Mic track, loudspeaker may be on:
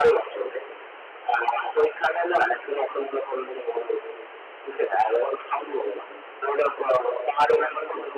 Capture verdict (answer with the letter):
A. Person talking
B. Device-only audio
B